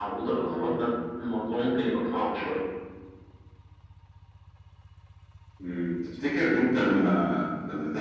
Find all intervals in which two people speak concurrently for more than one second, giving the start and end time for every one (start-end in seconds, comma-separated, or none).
none